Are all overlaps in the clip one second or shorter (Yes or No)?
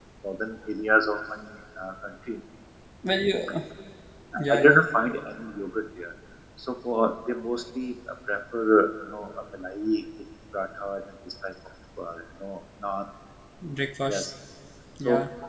Yes